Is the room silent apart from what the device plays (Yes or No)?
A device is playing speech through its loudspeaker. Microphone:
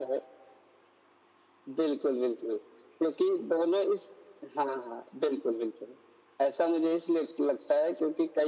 Yes